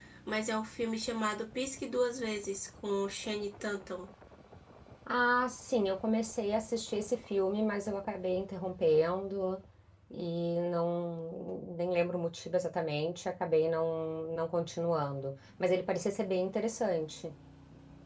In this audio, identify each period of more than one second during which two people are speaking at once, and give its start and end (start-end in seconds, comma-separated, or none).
none